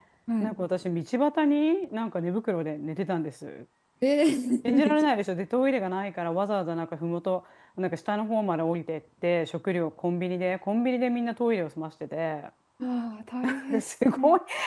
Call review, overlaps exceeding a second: none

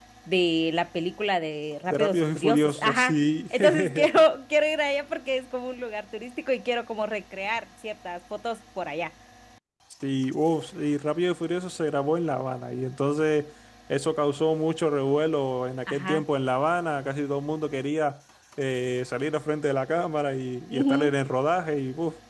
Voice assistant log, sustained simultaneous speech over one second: present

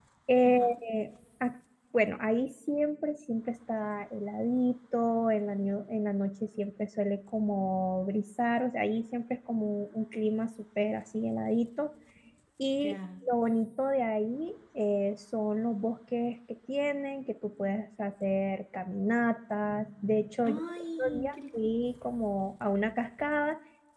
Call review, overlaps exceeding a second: present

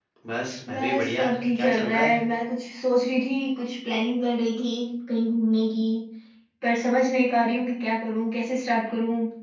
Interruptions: present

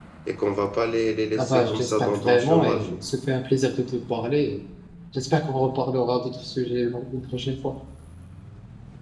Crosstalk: present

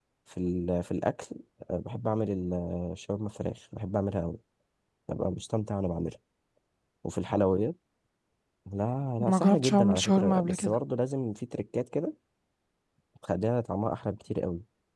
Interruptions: present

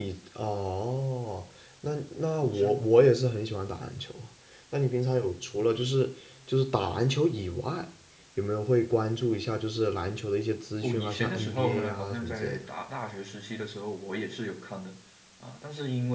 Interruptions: present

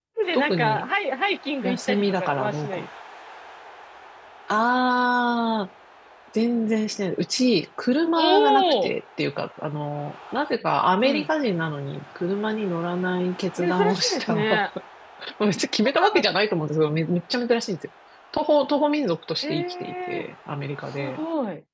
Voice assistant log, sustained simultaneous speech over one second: present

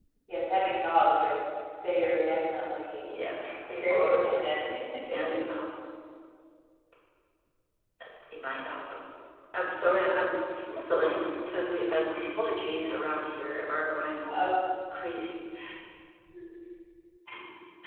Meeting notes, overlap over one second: present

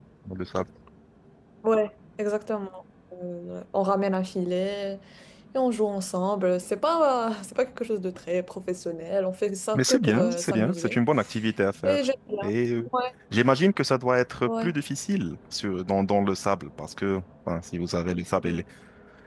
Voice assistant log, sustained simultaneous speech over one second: present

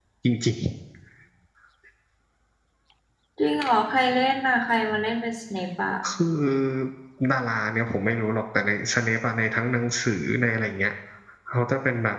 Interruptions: none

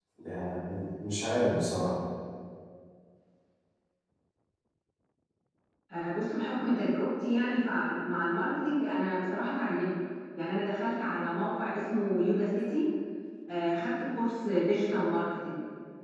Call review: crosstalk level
none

